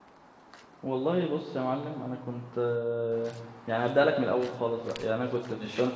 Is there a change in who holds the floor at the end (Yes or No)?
No